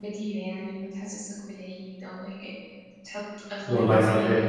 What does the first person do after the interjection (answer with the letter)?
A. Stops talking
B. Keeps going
B